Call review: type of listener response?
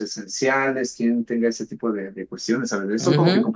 taking over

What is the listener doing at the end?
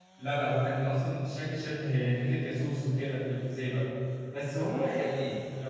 listening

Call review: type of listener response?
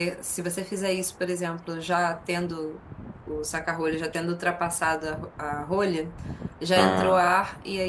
listening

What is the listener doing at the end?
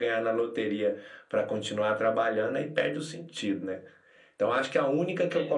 listening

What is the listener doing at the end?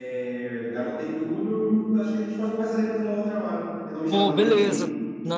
taking over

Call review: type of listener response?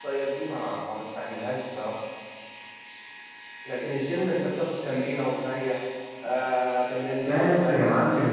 taking over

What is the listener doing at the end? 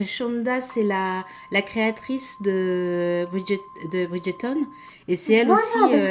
listening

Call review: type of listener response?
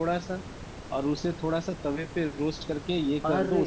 listening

